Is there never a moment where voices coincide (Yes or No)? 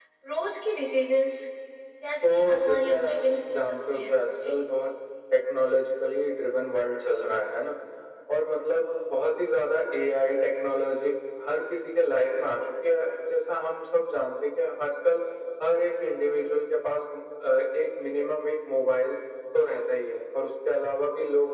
No